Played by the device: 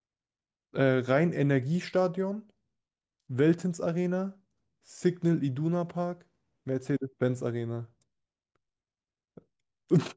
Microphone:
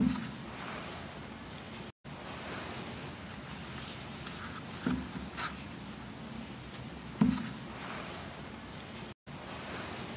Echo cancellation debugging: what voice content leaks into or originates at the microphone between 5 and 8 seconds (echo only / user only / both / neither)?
neither